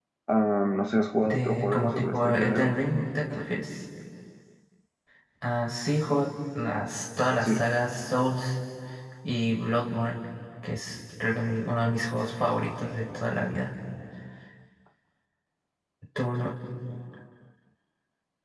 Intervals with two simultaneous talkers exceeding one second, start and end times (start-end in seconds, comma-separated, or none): 1.2-2.7